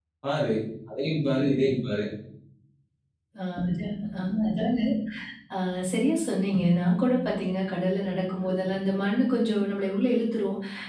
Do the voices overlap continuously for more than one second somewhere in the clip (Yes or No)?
No